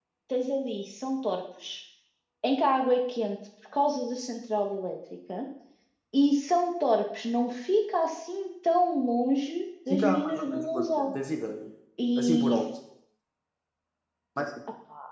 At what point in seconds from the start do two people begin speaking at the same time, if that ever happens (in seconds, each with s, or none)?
9.9 s